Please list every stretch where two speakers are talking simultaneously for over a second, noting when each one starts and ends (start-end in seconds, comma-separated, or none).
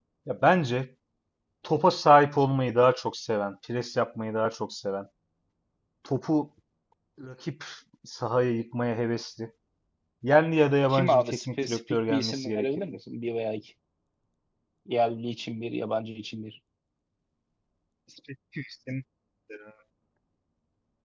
10.9-13.0